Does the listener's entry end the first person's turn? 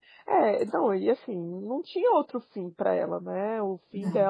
No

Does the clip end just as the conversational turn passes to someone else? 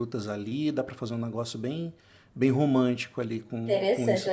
Yes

